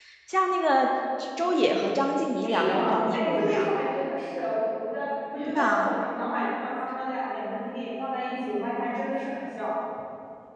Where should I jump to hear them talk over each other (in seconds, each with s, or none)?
2.5 s